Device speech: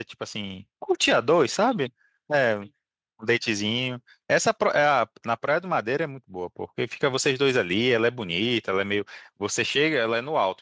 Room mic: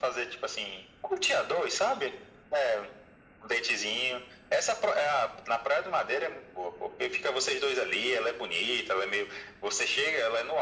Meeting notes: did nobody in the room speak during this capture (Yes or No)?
Yes